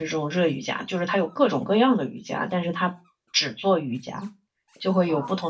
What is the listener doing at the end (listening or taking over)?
listening